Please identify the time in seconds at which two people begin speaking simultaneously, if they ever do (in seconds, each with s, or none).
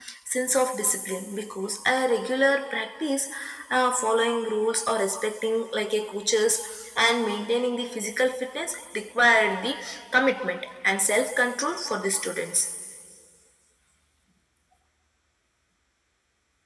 none